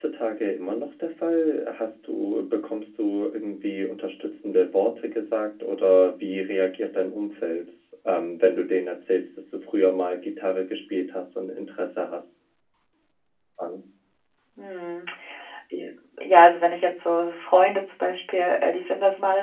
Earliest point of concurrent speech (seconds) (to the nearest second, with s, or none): none